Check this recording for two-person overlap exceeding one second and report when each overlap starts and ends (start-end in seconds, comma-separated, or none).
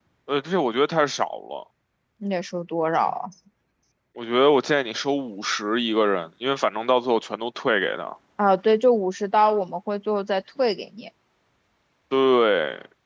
none